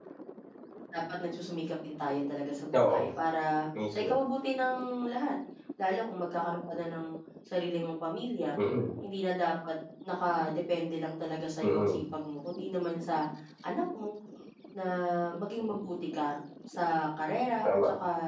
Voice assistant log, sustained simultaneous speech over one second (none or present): none